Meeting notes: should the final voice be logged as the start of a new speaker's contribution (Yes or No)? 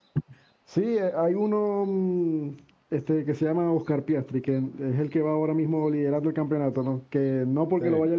No